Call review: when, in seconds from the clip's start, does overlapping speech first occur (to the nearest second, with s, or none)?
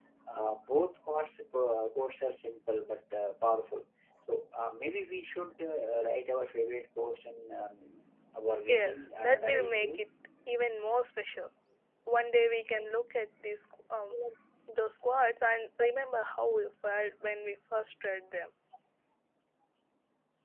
9 s